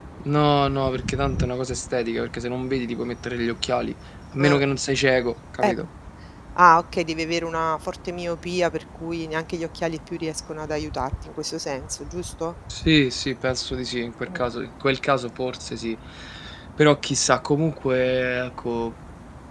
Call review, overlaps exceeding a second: none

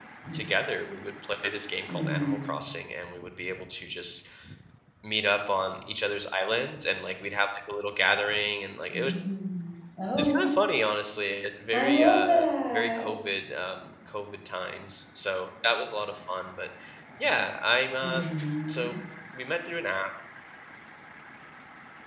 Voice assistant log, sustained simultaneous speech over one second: present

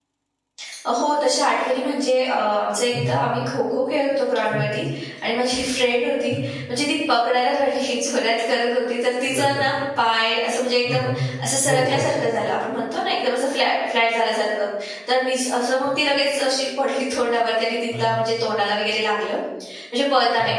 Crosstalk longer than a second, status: none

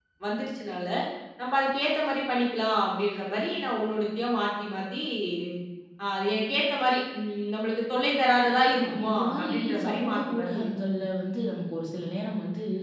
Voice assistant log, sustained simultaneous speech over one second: present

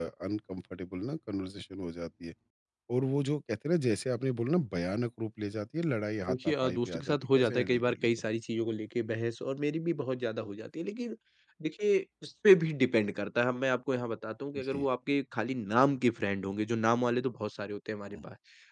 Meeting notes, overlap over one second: present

